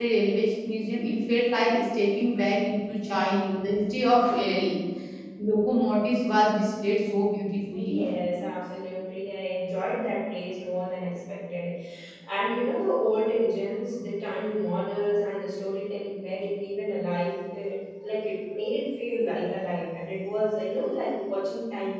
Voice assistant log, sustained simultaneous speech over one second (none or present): none